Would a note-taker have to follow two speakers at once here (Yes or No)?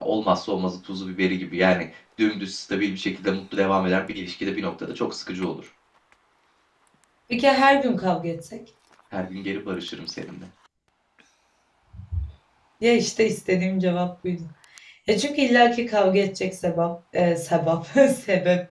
No